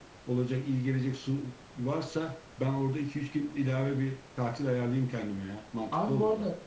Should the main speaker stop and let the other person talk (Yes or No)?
Yes